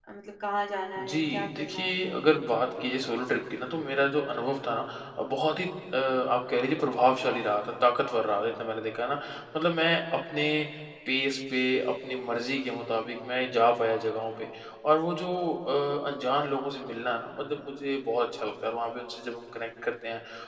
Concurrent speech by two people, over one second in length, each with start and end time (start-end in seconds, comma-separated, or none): 1.0-2.2